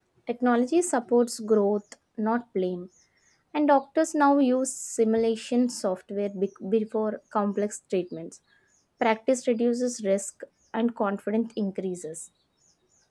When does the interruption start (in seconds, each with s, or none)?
none